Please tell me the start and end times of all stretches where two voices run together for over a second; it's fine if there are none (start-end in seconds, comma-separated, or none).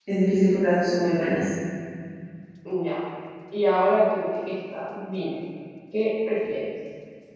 none